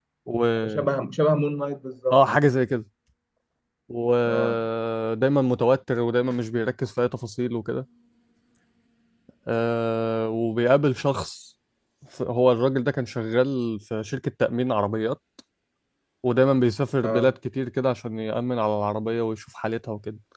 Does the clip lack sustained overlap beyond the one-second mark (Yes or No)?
Yes